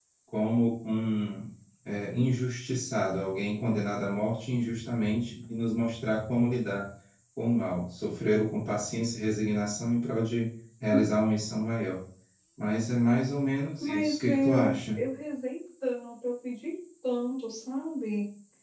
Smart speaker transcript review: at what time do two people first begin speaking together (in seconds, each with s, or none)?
13.8 s